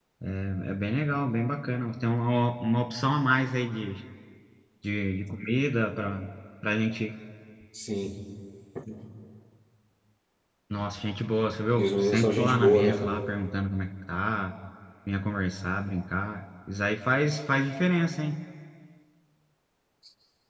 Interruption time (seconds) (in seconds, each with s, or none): 11.8 s